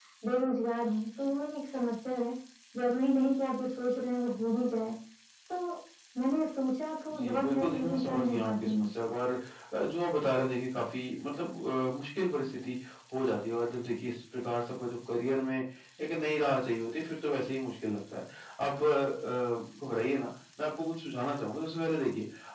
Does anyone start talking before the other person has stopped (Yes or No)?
Yes